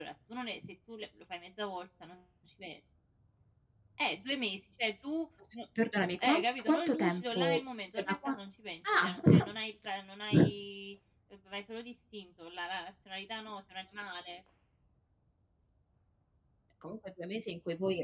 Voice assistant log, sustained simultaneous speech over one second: present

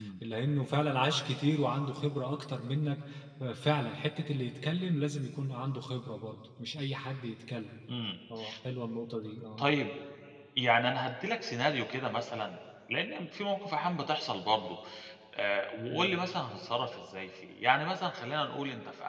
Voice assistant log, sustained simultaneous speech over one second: none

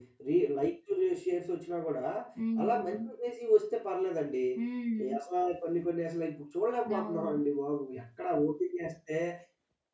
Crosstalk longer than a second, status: none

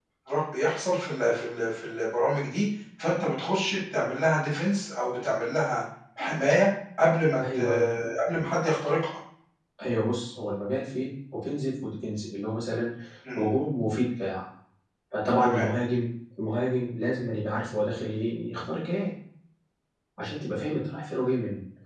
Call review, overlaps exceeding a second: none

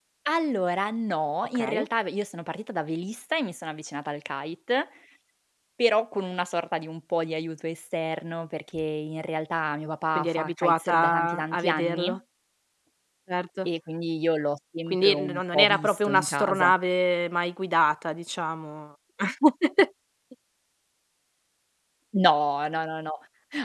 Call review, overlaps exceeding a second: present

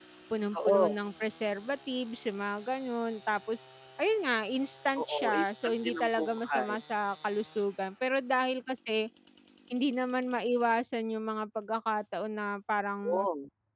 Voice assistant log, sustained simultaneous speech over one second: present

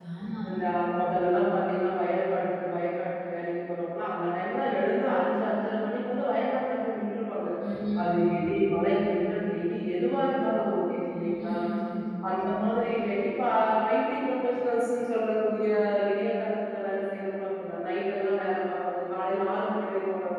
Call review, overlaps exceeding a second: none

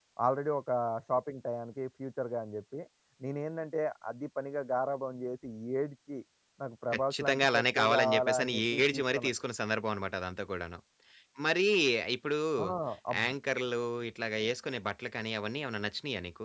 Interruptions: present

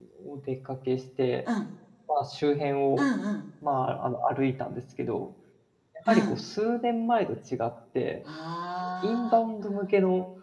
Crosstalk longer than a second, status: none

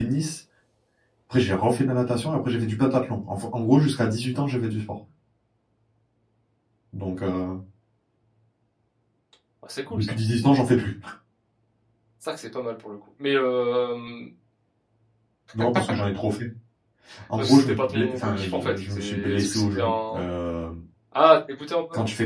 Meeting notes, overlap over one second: present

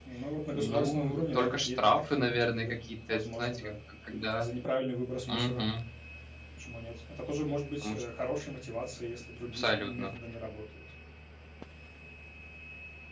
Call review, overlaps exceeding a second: present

